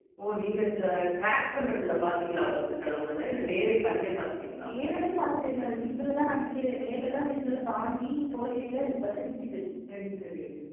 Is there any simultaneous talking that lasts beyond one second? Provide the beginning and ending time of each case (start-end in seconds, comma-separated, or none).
none